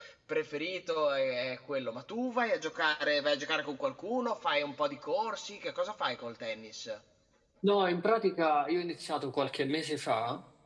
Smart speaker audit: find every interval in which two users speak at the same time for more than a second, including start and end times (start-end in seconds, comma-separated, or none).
none